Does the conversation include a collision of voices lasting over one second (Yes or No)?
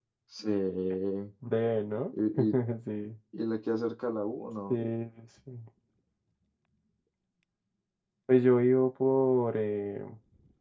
No